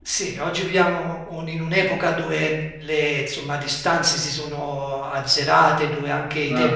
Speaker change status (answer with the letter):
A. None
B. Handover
A